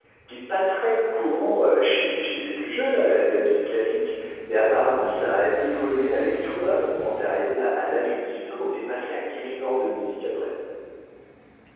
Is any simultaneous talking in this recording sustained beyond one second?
No

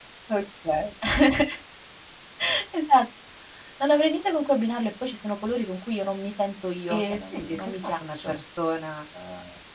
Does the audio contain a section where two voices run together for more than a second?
Yes, from 6.9 s

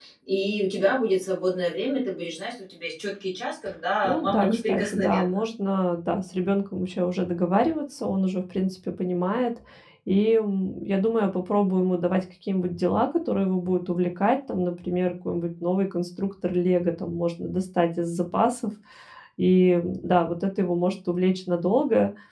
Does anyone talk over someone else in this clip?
Yes, from 4.0 s

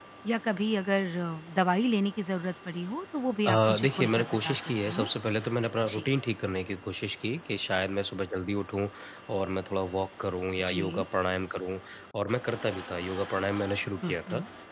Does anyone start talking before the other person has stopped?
Yes, from 3.4 s

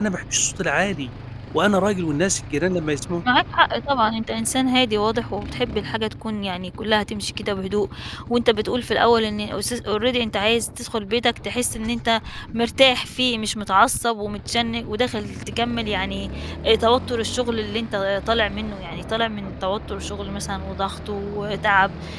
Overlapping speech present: No

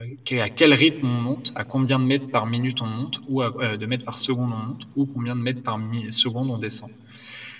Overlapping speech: No

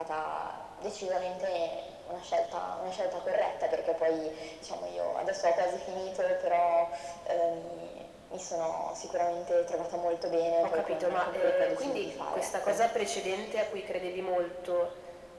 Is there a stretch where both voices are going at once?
Yes, from 10.6 s

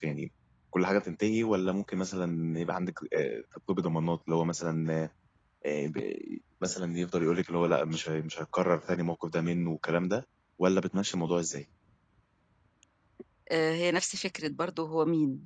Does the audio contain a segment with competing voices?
No

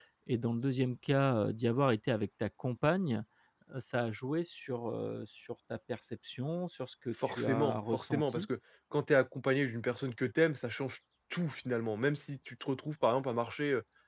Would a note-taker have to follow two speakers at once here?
Yes, from 7.1 s

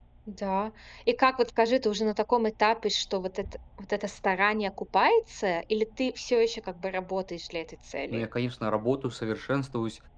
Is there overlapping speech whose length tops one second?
No

